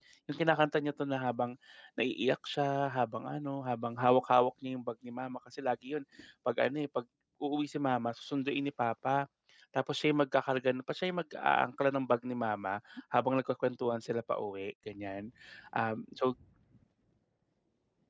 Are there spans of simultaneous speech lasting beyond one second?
No

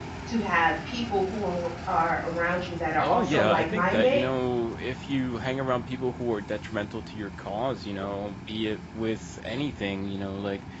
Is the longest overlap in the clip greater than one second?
Yes, from 3.0 s

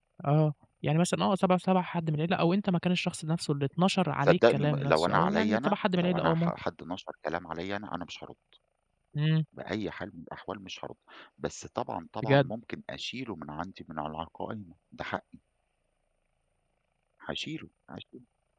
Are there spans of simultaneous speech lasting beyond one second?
Yes, from 4.2 s

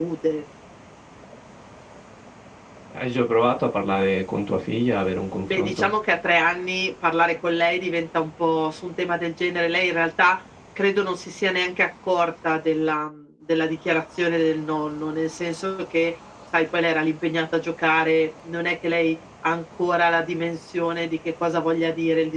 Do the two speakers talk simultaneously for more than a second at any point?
No

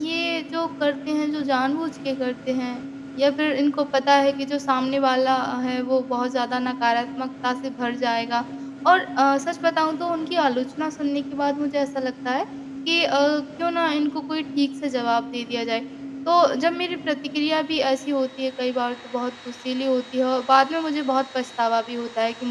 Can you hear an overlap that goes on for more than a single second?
No

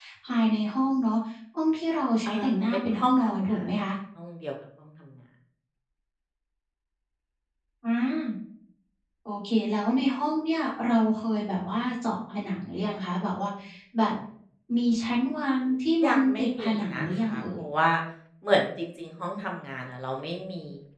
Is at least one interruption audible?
Yes, from 2.3 s

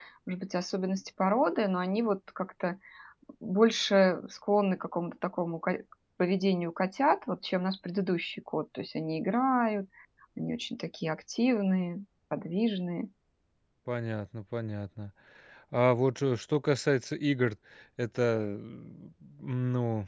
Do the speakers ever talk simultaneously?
No

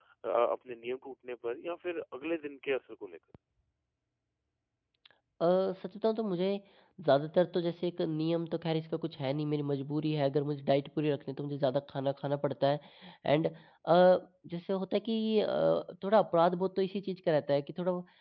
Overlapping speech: No

